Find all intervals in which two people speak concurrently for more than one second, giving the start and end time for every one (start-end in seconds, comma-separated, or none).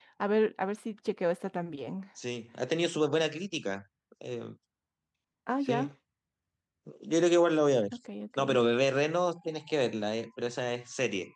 none